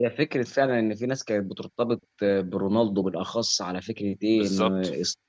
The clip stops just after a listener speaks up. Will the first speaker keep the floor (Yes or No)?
Yes